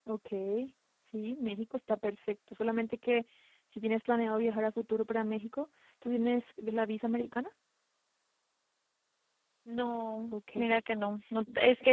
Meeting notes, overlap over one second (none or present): none